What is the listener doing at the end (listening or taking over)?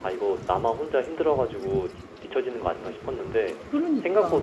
listening